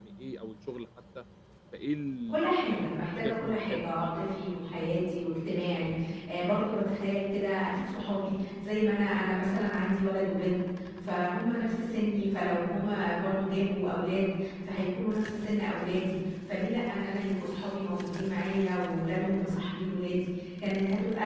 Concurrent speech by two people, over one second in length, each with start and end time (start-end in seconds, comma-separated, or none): 2.3-4.2